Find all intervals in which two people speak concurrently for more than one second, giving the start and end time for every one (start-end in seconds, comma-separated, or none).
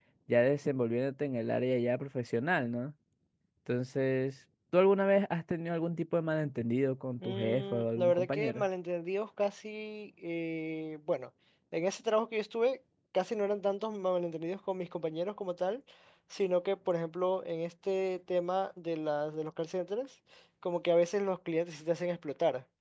7.2-8.7